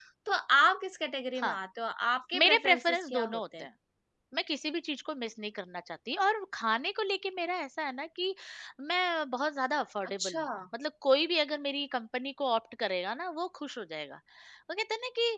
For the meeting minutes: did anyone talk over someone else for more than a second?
Yes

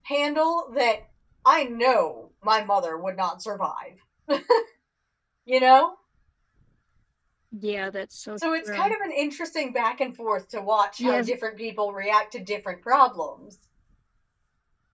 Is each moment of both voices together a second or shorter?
Yes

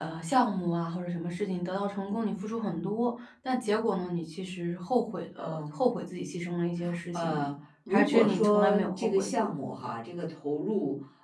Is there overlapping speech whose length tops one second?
Yes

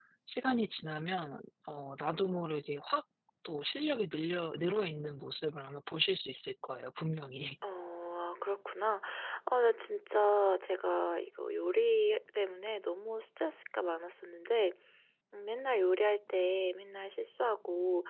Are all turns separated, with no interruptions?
Yes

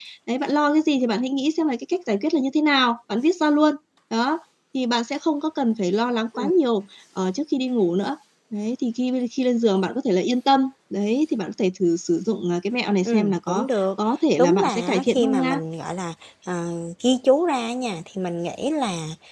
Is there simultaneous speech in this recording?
Yes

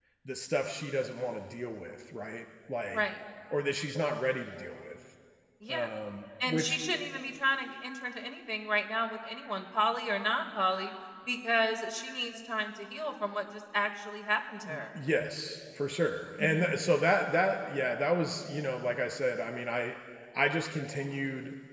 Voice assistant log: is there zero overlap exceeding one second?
Yes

